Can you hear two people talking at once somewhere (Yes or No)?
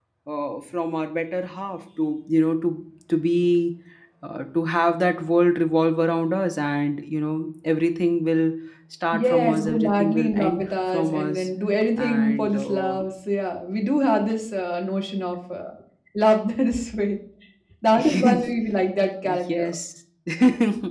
Yes